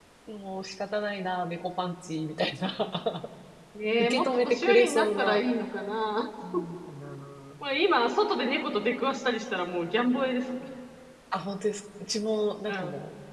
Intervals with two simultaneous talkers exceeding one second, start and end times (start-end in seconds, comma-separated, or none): 4.0-5.4